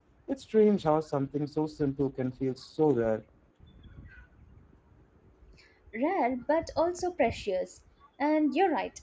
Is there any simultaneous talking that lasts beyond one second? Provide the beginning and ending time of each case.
none

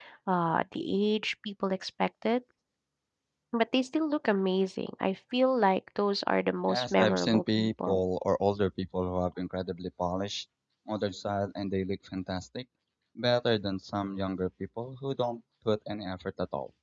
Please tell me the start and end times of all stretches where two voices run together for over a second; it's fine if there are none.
6.7-8.0

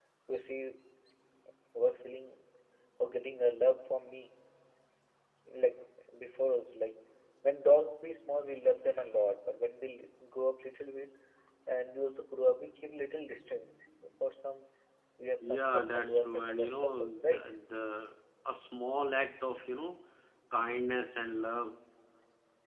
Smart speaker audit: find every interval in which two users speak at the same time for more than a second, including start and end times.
15.4-17.4

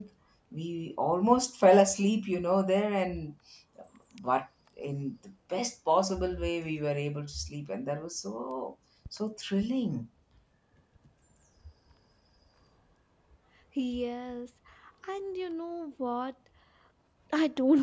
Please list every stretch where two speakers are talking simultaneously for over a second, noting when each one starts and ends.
none

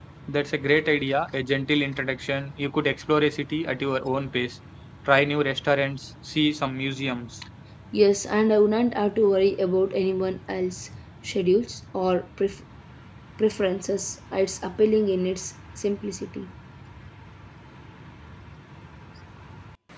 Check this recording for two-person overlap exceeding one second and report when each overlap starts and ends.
none

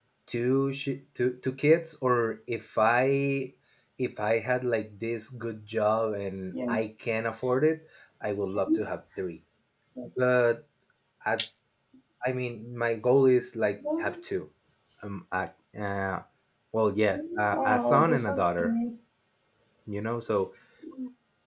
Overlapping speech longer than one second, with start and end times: 17.5-18.7

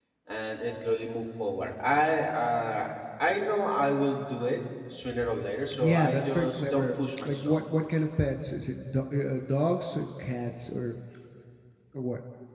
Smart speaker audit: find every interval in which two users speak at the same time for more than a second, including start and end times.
5.7-7.6

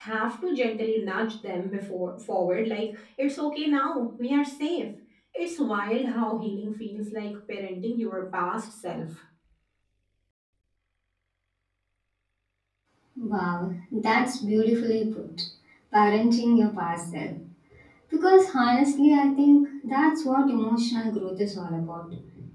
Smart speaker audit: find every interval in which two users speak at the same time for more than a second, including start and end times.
none

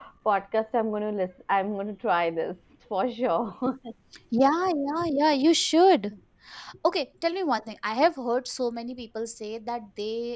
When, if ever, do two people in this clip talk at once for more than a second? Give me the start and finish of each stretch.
none

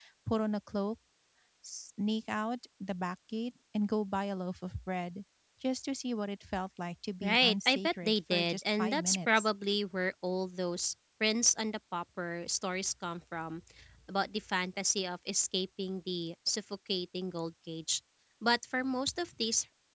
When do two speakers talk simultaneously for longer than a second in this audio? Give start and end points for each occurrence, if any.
7.2-9.5

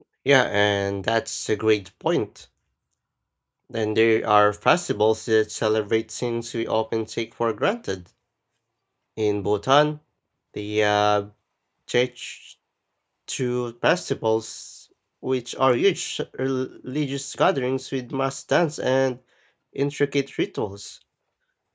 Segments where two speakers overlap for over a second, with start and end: none

